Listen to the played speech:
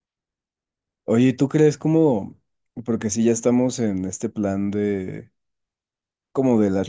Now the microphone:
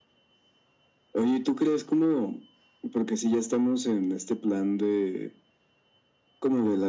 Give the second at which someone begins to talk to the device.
none

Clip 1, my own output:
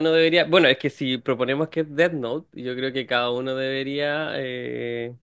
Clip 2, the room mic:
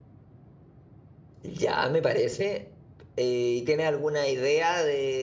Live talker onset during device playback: 1.4 s

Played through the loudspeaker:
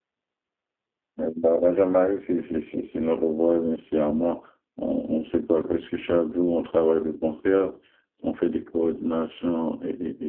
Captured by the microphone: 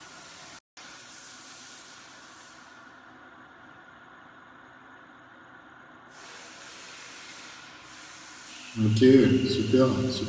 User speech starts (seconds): 8.8 s

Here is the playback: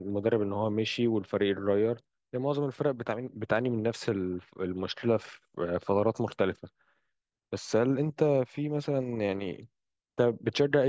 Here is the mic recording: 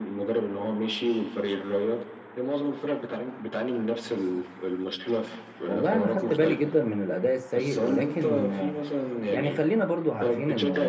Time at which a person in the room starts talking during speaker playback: 5.6 s

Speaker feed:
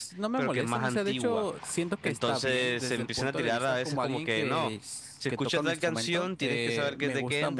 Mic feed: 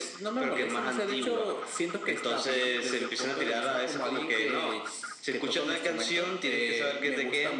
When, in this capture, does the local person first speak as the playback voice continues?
none

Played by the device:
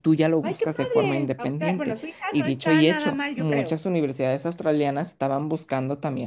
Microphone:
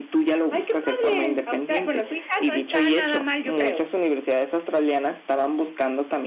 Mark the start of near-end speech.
none

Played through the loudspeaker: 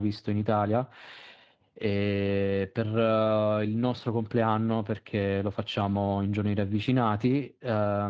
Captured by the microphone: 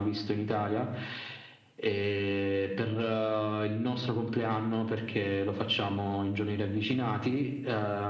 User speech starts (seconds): none

